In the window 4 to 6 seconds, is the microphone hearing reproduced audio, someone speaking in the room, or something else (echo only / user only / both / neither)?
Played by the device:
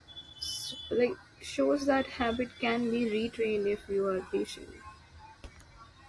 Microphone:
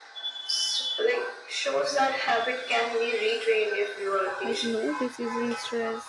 both